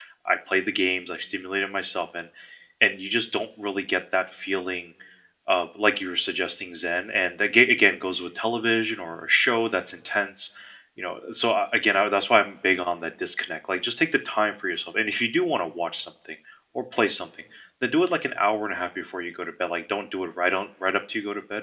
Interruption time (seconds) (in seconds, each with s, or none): none